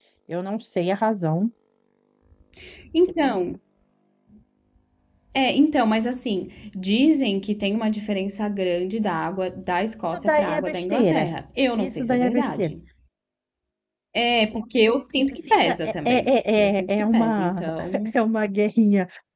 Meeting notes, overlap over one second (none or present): present